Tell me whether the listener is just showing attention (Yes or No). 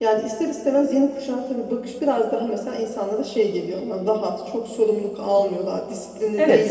No